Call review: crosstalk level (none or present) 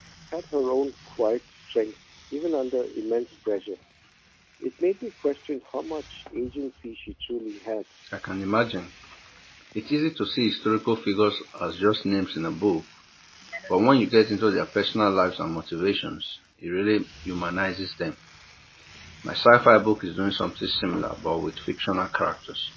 none